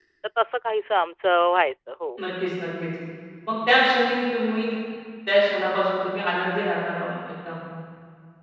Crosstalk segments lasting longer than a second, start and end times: none

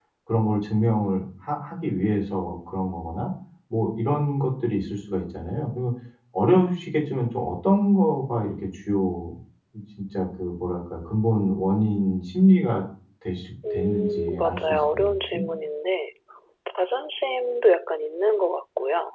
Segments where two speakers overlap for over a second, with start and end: 13.7-15.4

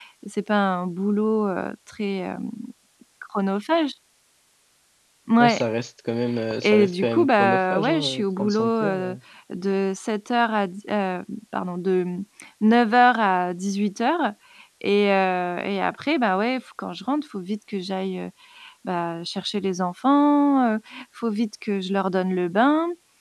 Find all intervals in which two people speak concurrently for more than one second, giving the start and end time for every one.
6.6-9.2

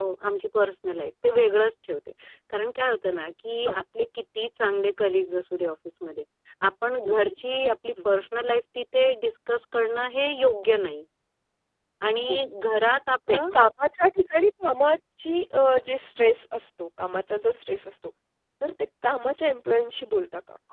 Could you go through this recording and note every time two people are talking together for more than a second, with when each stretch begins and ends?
none

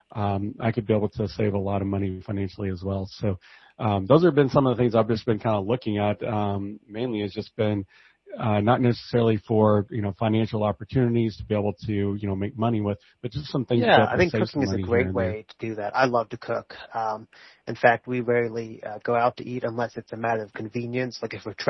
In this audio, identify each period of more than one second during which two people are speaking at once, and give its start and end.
13.8-15.4

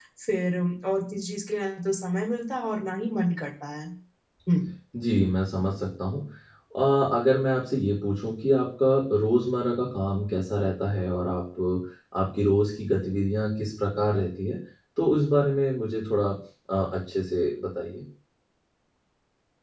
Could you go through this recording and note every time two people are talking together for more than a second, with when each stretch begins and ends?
none

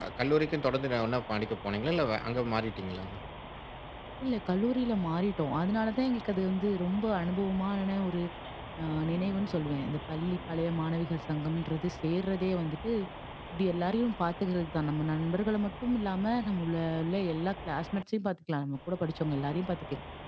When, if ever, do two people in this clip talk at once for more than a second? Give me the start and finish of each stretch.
none

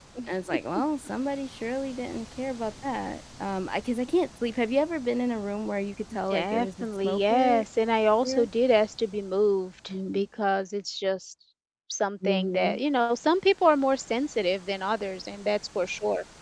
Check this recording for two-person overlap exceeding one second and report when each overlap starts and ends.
6.3-7.6

